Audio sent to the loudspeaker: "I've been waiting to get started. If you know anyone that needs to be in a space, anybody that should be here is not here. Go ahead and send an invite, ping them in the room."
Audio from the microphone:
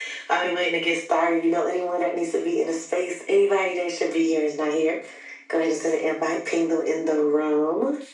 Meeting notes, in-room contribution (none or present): none